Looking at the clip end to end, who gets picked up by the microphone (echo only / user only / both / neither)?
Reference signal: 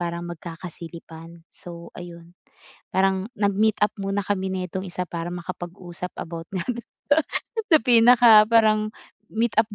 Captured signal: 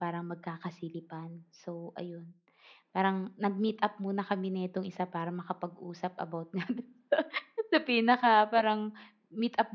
echo only